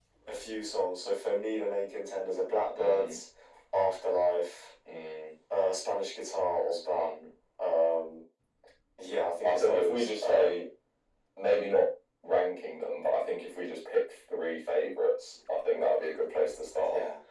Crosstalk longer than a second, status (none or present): present